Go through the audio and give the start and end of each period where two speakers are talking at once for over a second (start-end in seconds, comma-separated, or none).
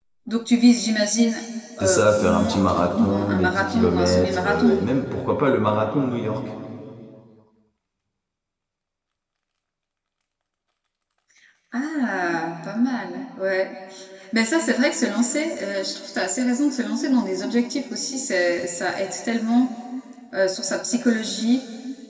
1.8-4.8